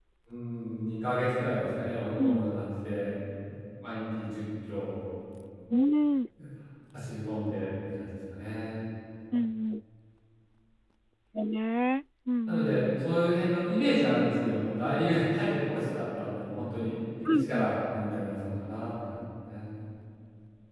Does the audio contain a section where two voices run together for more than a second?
No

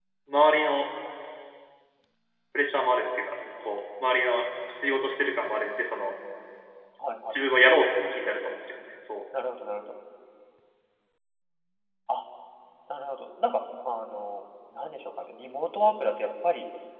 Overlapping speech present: No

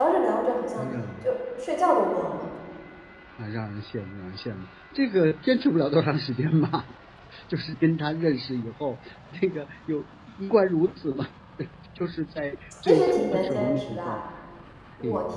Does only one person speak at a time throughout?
No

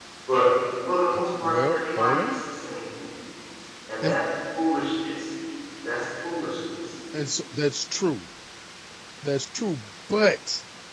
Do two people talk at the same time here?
Yes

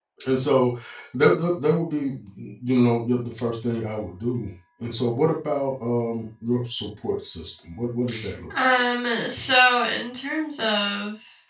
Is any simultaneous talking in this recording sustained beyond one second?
No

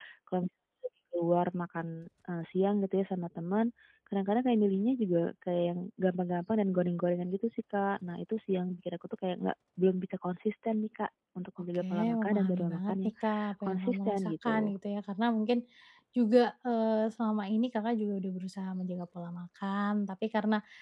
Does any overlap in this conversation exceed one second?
Yes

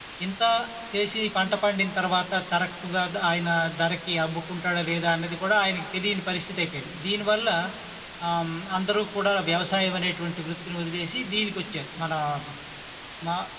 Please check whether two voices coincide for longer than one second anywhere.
No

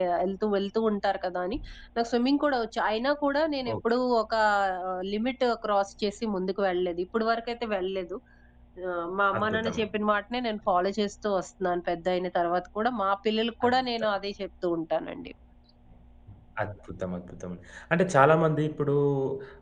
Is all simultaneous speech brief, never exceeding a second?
Yes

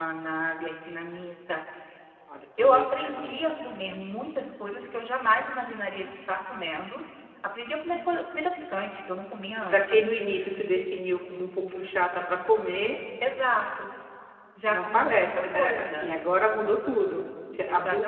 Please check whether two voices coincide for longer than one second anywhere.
Yes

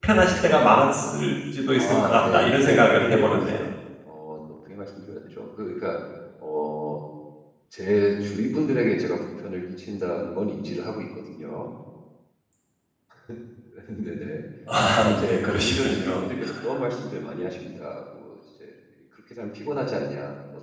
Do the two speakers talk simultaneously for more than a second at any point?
Yes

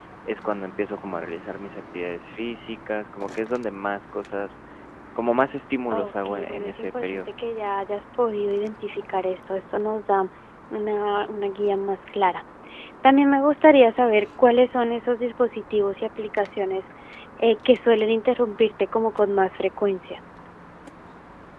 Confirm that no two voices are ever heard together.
No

